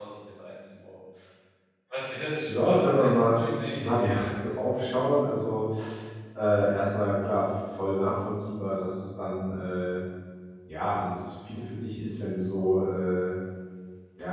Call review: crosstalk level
present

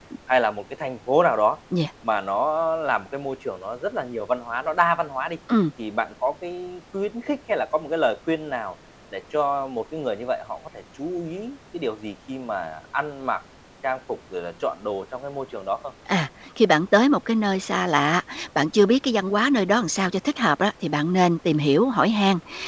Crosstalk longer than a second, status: none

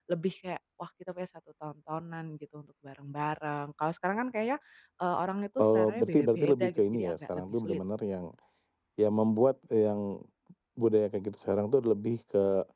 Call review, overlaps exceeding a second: present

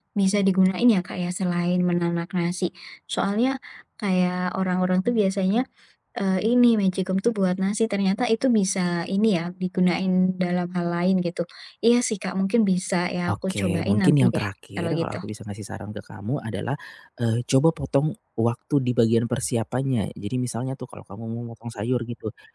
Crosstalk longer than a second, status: present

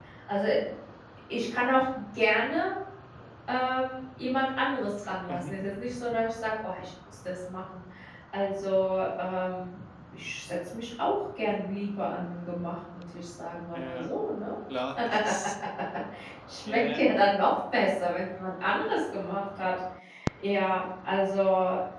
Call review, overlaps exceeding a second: none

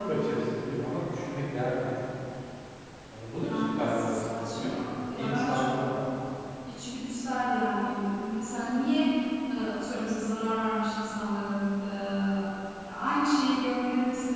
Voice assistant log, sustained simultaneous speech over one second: present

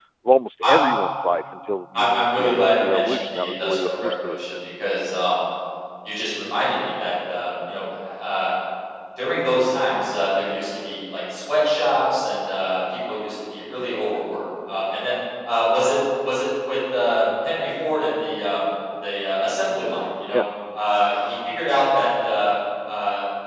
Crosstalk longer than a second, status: present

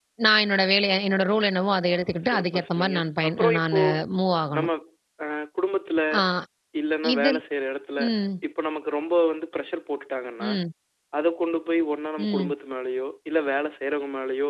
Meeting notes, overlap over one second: present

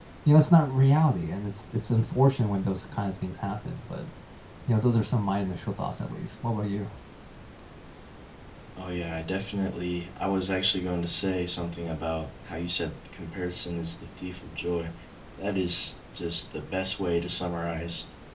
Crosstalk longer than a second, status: none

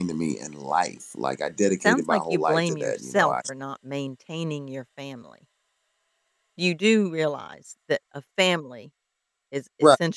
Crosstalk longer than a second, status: present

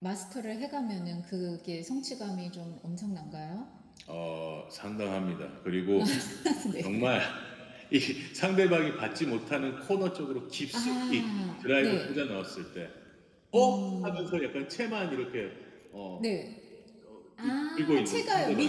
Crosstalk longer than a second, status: present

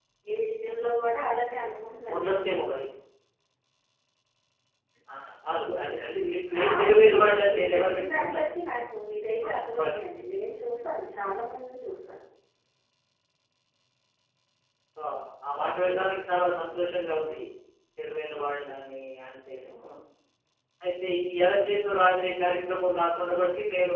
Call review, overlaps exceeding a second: present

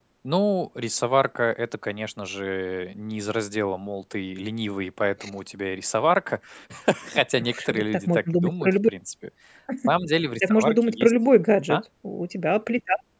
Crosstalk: present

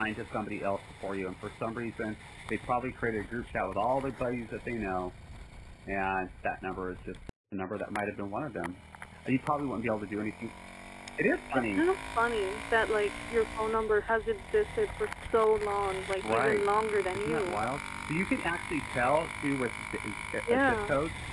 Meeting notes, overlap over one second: none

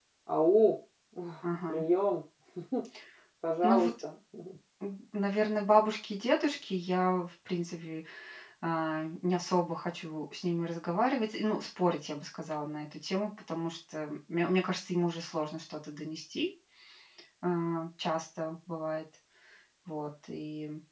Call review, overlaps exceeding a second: none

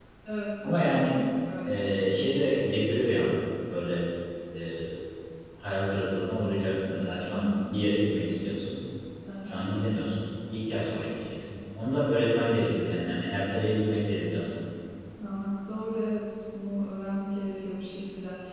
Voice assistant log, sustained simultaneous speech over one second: none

